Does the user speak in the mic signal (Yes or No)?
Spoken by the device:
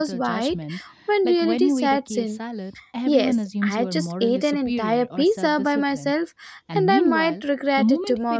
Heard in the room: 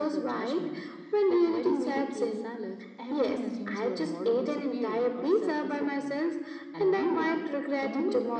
No